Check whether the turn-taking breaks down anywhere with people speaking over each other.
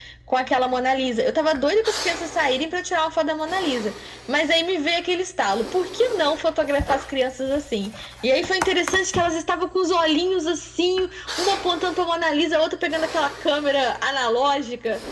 No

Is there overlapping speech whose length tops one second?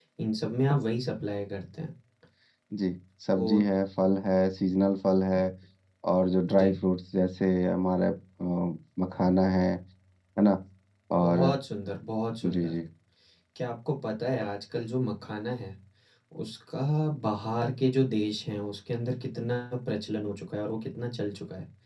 No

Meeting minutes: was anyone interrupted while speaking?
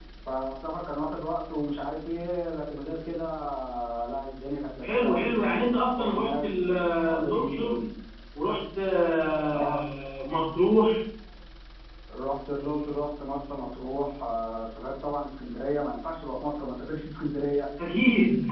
Yes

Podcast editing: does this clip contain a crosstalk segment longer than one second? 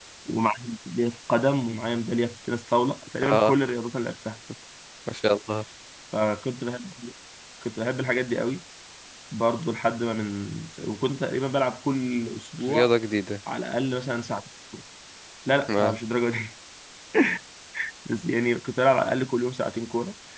No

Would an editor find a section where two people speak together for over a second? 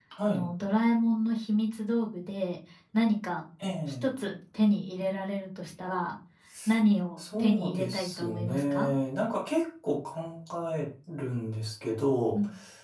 Yes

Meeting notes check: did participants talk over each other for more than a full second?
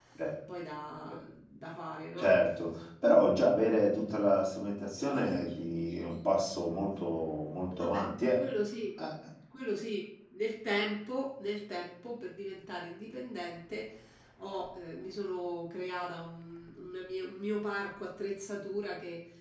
No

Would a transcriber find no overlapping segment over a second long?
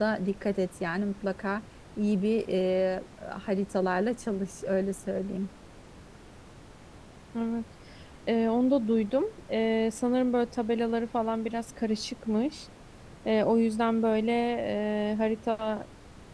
Yes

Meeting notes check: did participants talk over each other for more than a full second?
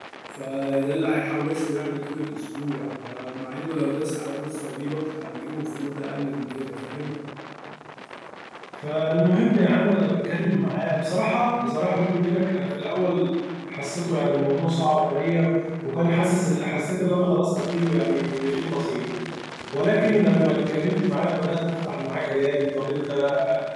No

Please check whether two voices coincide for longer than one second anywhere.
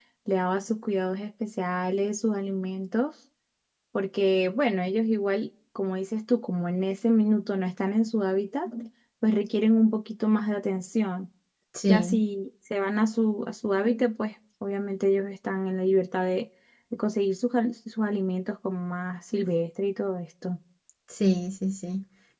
No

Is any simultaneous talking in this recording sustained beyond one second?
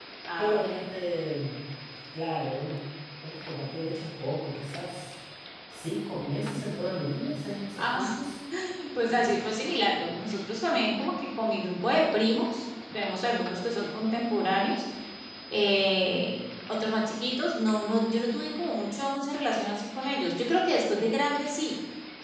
No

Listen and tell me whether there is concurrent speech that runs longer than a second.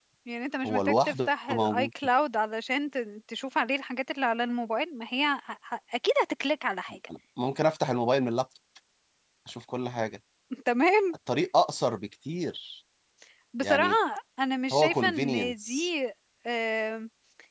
Yes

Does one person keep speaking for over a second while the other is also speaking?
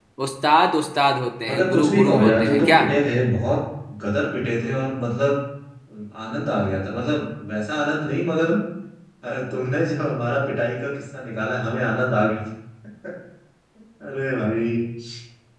Yes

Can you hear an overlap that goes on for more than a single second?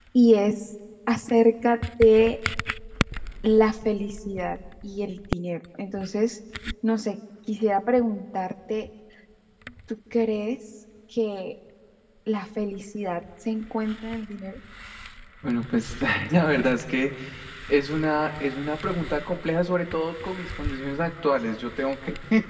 No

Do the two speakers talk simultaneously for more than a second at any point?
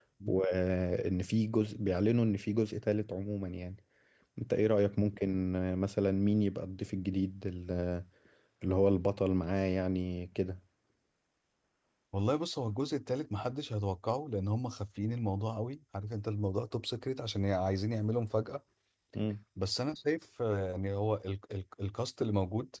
No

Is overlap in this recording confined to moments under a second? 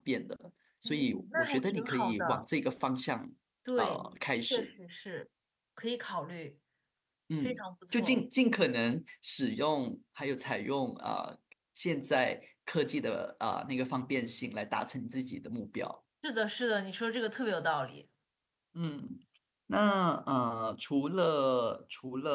No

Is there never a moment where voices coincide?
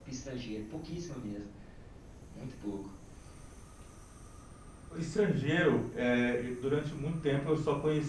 Yes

